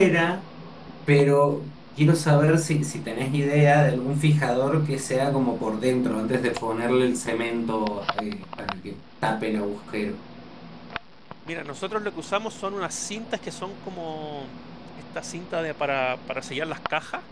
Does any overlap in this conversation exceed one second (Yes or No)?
No